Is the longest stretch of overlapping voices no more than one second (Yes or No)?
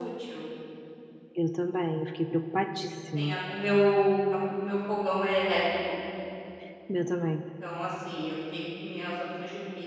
Yes